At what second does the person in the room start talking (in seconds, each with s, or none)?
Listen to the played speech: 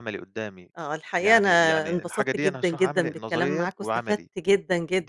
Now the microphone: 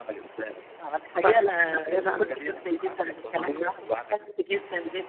1.2 s